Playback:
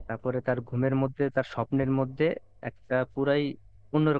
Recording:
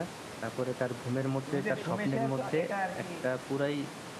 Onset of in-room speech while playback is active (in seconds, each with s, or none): 1.4 s